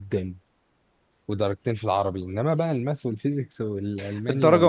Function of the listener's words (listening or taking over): taking over